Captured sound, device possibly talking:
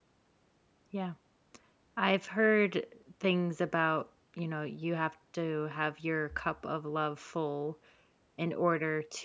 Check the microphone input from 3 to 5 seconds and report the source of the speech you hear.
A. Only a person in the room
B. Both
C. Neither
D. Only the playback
A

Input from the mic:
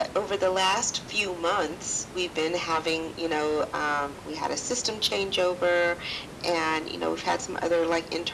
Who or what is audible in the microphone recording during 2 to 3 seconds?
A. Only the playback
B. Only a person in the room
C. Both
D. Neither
A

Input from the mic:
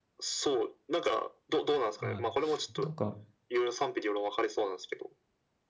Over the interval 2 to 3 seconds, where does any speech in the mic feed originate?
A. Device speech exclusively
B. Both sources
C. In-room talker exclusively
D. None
B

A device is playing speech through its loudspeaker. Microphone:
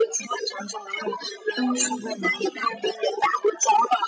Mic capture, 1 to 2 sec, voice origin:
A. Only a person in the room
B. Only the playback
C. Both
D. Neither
C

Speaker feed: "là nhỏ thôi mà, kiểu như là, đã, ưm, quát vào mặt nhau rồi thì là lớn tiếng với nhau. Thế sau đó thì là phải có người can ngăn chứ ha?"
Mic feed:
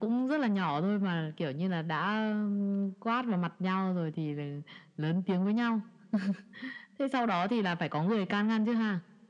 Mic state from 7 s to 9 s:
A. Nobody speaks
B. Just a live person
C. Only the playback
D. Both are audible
C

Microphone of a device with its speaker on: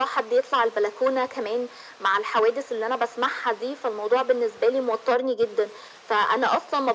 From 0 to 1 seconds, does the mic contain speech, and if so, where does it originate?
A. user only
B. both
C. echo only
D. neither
C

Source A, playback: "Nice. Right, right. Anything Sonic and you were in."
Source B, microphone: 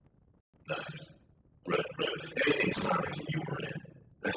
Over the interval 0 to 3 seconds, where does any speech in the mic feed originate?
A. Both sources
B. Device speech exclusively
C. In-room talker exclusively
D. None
B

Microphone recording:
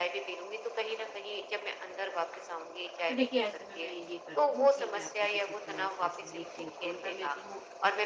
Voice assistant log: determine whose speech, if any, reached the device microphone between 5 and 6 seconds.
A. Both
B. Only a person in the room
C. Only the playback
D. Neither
A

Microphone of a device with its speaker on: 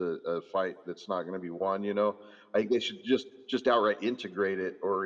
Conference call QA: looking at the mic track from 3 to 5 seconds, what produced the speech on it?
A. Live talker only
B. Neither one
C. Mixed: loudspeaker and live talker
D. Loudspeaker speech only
D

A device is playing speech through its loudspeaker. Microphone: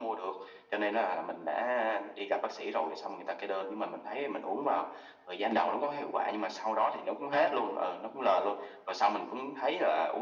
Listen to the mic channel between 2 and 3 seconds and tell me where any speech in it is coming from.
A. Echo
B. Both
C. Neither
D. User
A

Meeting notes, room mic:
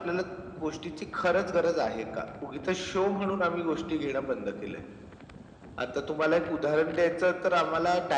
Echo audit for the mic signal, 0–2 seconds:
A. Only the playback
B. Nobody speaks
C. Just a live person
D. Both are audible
A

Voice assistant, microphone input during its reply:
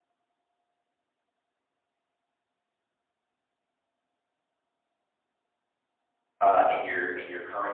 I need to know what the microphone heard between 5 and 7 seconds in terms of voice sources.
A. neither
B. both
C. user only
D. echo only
C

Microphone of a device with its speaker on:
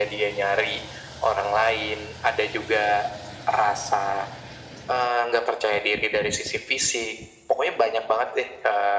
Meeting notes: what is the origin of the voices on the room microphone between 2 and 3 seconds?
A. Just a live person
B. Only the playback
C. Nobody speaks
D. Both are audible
B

